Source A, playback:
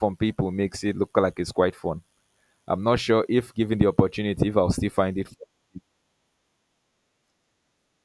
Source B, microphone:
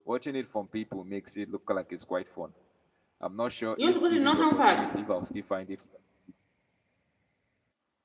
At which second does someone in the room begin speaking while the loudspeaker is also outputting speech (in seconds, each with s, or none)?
3.8 s